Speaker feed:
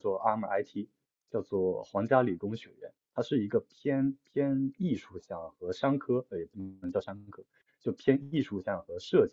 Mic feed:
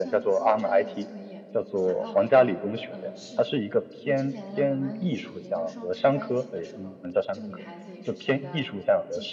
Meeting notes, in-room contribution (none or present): present